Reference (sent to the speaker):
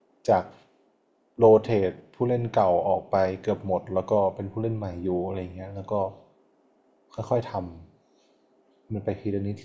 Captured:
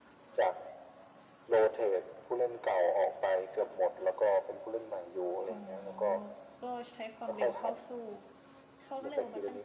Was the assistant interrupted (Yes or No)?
Yes